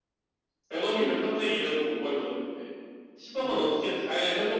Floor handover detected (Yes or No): No